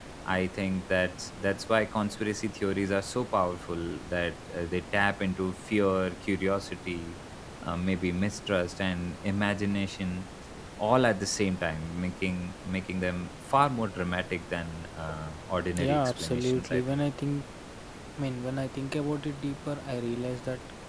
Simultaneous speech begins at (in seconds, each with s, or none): 15.8 s